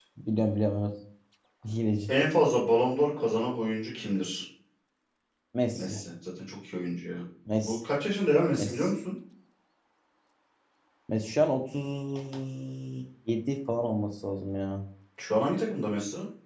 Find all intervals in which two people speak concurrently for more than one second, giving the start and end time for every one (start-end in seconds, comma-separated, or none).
none